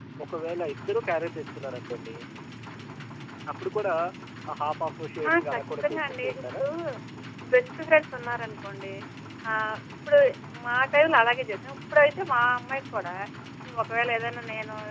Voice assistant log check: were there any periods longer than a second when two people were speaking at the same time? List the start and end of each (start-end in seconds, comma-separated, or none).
5.3-6.6